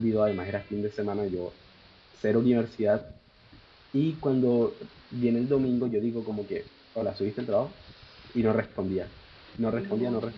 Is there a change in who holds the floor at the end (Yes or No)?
No